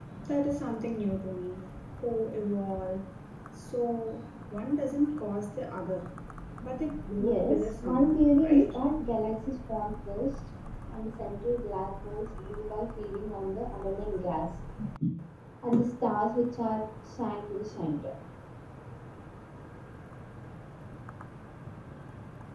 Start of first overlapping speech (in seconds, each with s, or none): 7.2 s